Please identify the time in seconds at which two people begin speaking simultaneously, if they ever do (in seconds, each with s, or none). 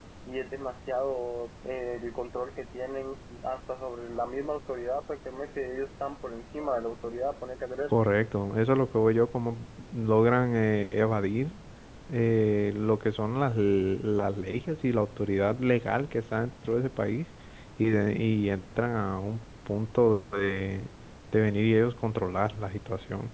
none